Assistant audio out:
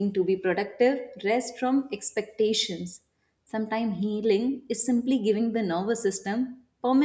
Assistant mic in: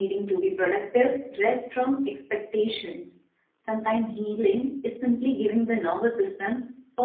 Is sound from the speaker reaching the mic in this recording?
Yes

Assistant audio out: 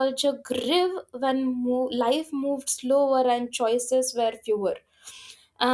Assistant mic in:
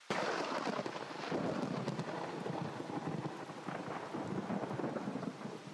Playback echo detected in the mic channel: No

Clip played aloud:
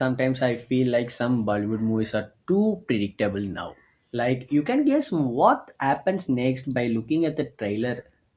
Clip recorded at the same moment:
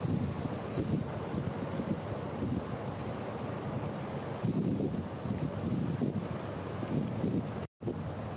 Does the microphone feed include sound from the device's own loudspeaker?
No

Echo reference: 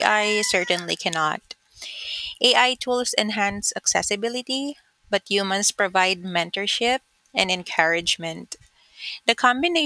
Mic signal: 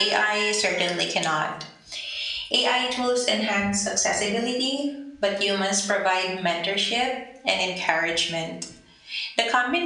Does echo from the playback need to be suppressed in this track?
Yes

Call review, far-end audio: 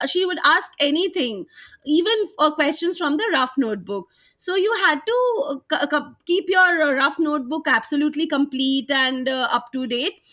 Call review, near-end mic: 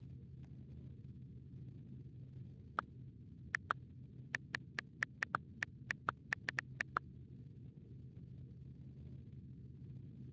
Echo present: No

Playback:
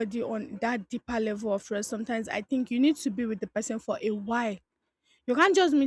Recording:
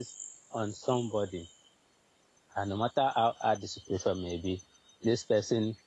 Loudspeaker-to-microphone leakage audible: No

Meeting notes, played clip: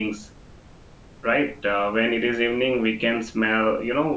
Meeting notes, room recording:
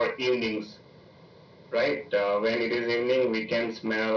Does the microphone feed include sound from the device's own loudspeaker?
Yes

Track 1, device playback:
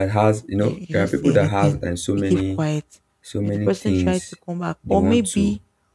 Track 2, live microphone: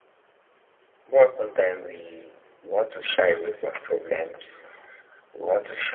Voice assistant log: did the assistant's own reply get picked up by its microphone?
No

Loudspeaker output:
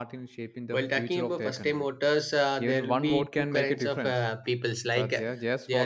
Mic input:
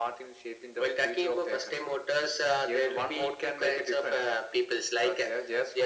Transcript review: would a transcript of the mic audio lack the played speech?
No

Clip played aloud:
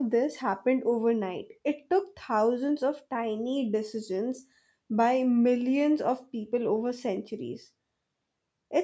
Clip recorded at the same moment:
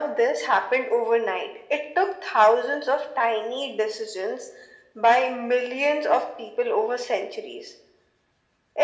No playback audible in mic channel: No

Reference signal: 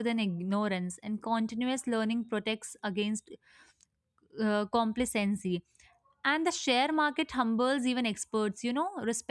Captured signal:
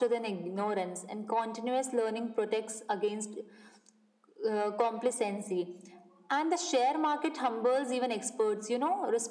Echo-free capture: No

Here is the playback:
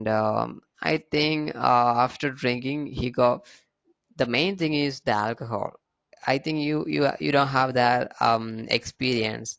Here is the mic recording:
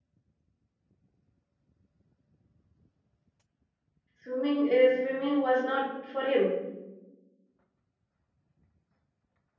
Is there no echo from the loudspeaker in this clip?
Yes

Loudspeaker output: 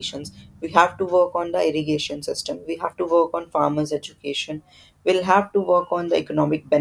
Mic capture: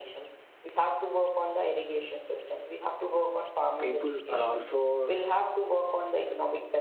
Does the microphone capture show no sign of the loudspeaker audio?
No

